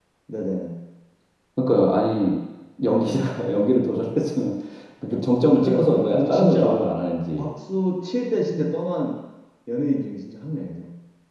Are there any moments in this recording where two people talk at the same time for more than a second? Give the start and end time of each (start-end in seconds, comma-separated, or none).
5.6-6.8